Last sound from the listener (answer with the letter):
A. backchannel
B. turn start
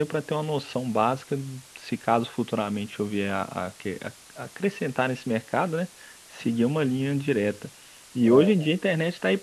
A